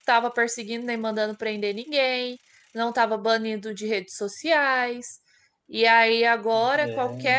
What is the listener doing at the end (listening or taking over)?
listening